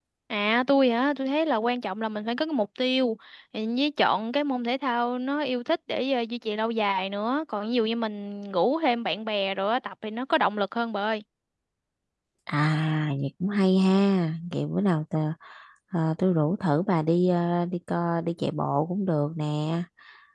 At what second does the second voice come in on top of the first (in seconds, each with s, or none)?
none